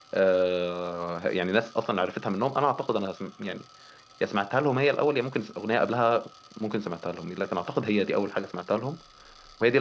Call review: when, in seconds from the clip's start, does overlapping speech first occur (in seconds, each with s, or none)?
none